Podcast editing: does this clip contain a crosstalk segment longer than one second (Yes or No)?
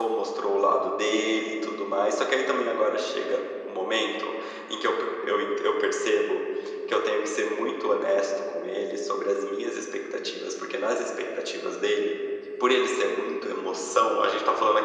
No